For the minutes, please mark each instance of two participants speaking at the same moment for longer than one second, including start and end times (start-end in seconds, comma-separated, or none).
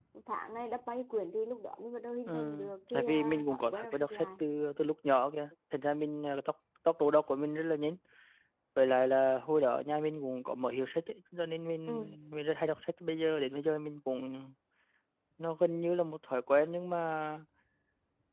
2.9-4.3